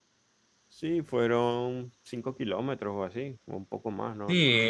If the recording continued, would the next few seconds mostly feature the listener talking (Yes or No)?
Yes